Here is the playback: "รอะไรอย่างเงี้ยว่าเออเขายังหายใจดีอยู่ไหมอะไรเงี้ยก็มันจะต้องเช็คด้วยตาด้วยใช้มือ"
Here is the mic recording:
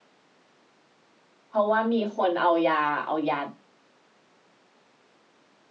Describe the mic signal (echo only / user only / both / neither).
user only